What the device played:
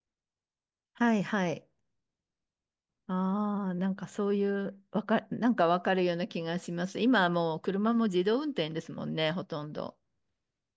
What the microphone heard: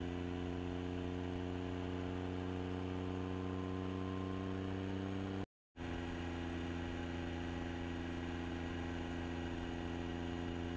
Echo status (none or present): none